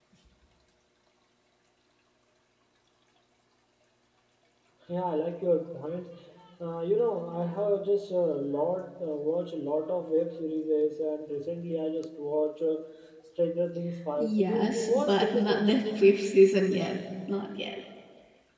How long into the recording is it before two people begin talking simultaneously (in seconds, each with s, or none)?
14.2 s